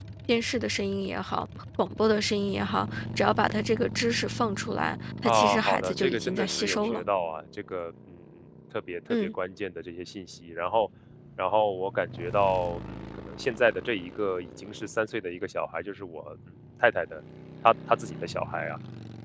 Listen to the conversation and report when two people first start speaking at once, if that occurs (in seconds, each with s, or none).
5.2 s